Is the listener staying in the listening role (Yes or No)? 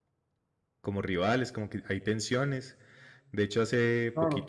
Yes